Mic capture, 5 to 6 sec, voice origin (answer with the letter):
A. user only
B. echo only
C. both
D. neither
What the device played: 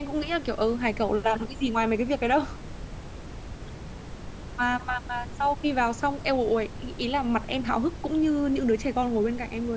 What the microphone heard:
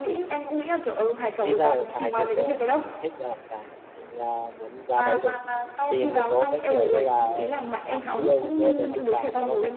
C